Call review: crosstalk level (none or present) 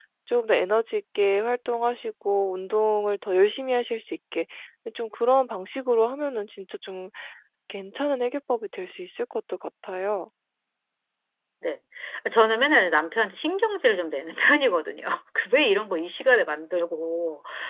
none